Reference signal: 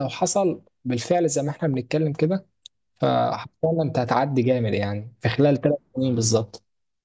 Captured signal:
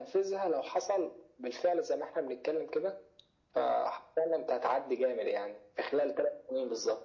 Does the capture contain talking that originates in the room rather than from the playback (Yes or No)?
No